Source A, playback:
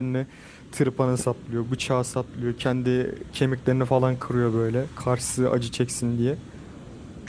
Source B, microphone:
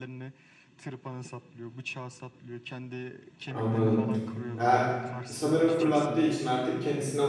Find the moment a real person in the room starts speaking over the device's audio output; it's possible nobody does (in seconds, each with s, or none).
3.5 s